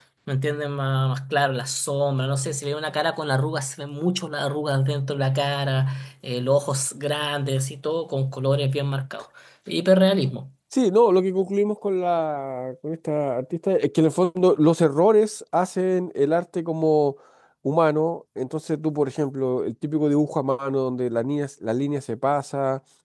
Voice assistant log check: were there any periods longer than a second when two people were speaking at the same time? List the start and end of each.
none

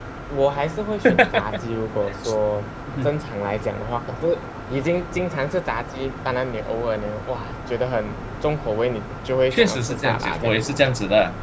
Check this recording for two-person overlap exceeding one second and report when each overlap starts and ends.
9.5-10.8

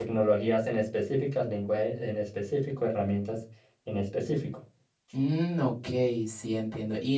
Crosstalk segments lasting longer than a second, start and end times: none

